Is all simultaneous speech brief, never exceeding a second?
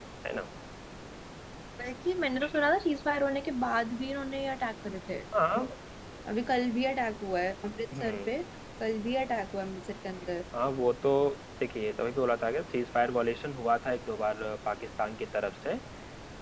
Yes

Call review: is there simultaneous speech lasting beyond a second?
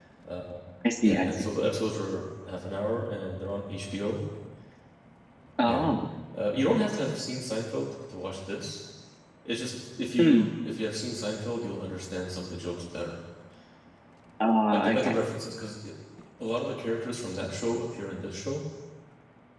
No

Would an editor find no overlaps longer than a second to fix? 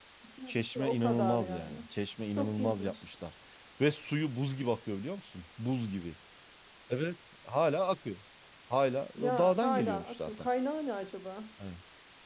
No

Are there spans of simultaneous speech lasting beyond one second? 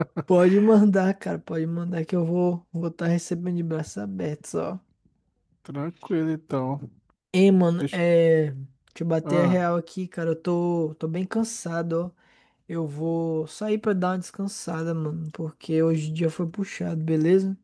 No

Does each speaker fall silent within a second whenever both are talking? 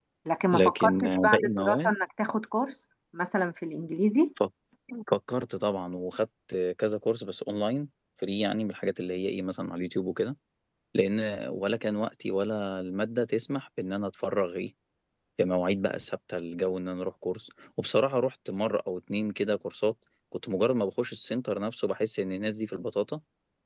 No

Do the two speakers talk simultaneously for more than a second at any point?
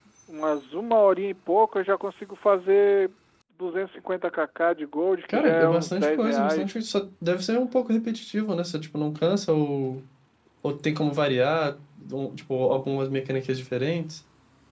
Yes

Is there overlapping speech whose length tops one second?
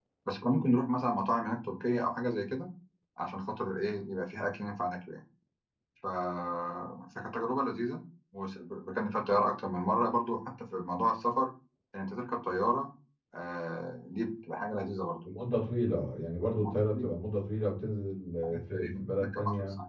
Yes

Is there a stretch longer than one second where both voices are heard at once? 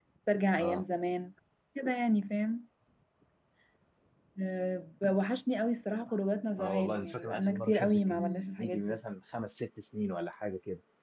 Yes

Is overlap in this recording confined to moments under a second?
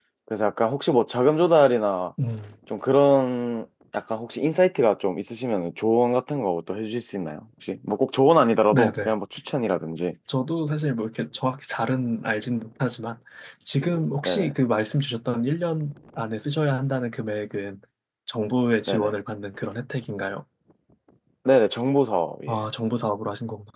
Yes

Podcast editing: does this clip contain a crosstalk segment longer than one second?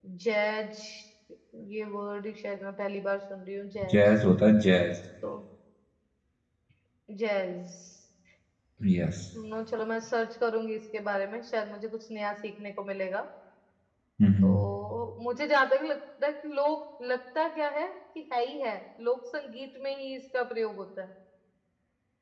No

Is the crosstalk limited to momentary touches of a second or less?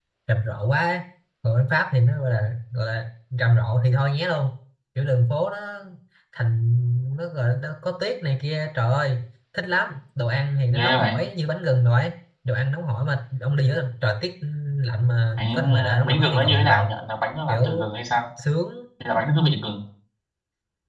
No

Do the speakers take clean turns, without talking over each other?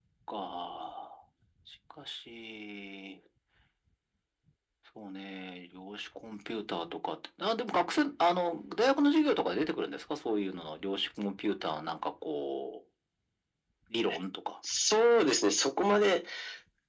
Yes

